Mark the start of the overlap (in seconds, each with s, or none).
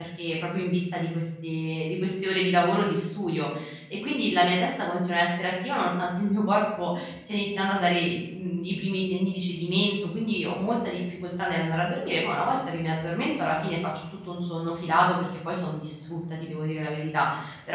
none